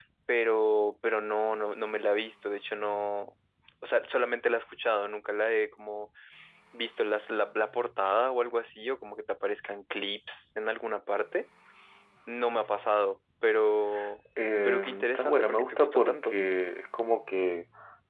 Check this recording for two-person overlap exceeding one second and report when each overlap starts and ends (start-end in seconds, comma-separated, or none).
14.6-16.4